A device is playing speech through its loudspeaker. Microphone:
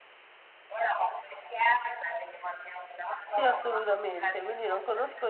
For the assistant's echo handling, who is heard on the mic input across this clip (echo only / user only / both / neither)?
both